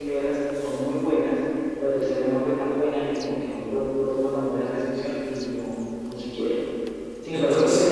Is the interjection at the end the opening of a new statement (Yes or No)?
No